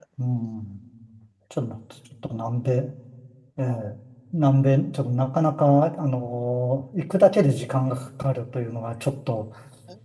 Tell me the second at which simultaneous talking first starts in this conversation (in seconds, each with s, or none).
none